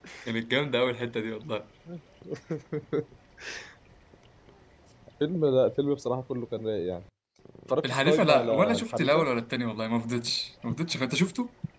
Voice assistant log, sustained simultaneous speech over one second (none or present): present